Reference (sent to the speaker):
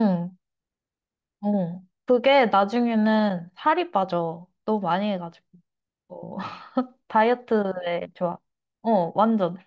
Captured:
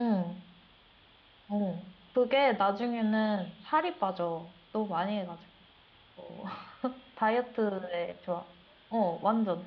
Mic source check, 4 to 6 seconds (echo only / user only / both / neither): echo only